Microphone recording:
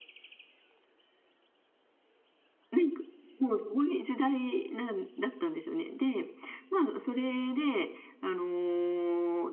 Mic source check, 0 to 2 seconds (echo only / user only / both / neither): neither